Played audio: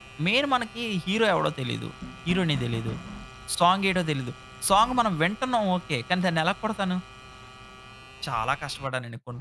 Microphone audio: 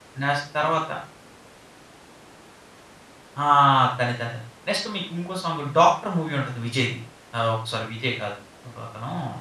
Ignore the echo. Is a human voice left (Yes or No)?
Yes